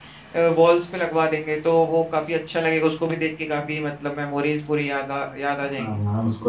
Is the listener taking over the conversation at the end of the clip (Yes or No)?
Yes